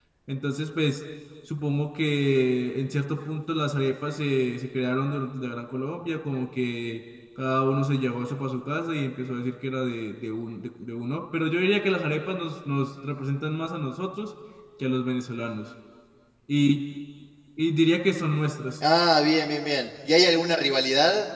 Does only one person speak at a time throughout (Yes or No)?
Yes